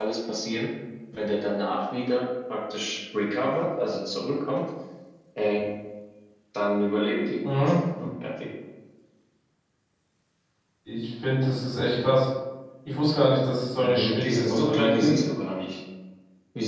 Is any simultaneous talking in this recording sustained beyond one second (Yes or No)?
Yes